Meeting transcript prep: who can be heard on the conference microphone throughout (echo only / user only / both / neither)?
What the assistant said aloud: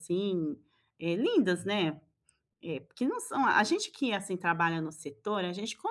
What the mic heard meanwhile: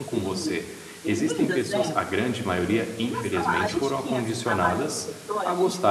both